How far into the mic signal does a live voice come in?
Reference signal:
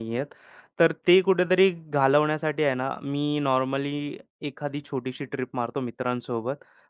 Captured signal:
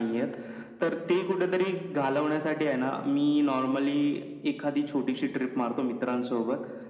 none

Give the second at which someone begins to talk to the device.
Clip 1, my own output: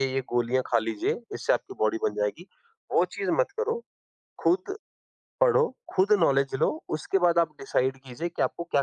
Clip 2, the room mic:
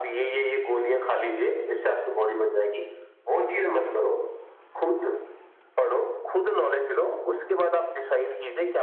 none

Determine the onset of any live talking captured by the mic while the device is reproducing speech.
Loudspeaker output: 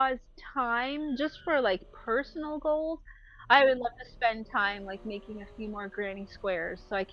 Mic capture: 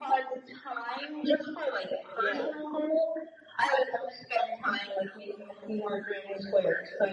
2.1 s

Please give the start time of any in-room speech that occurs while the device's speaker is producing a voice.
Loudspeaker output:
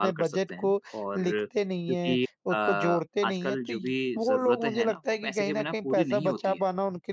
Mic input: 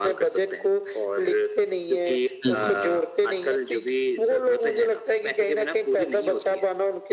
2.4 s

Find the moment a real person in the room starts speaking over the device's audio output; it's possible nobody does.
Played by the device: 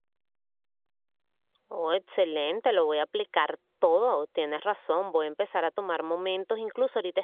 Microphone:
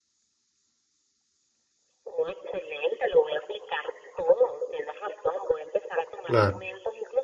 6.2 s

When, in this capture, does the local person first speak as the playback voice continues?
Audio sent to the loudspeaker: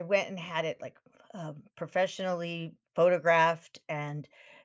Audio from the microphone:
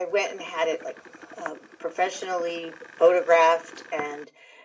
none

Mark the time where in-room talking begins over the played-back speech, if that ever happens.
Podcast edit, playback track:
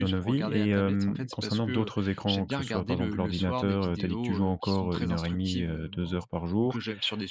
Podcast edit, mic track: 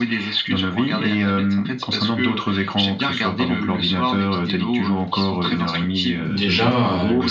6.2 s

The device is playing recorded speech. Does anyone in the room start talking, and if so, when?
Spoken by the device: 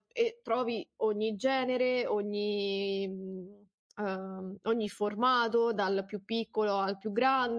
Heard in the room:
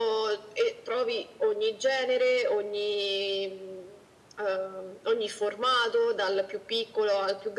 none

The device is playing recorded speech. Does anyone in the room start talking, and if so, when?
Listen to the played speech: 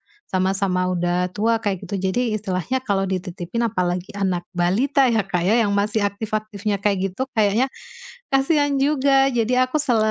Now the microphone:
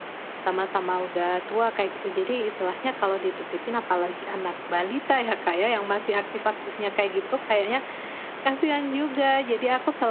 none

